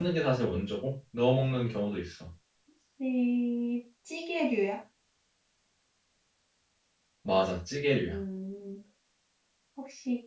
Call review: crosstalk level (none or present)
none